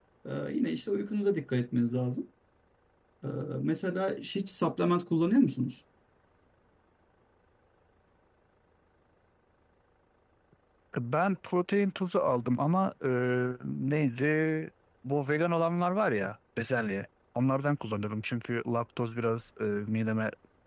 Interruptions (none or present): none